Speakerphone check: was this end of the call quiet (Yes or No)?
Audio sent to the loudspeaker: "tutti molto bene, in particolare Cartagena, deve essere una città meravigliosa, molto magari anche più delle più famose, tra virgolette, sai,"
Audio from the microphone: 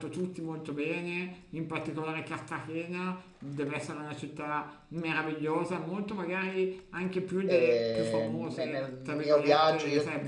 No